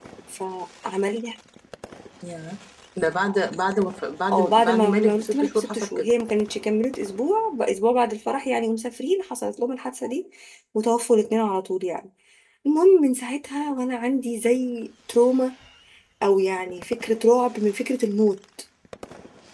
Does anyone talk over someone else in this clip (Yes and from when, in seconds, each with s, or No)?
Yes, from 4.3 s